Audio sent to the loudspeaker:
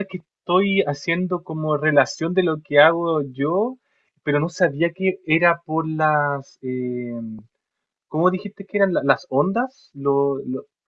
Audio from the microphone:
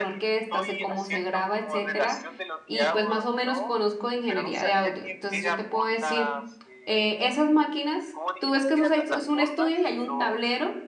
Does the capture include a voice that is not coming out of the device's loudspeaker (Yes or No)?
Yes